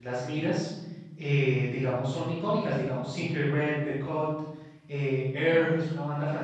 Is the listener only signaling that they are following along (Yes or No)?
Yes